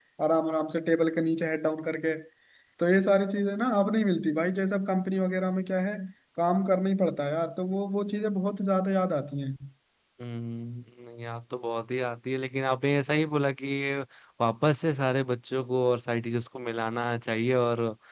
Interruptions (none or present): none